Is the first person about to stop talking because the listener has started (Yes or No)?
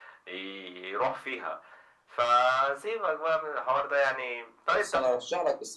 Yes